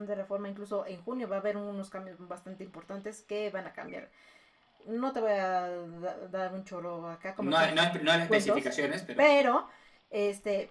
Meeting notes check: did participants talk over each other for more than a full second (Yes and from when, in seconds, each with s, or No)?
Yes, from 7.4 s